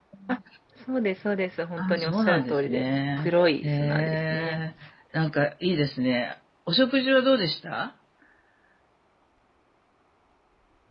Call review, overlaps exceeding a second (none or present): present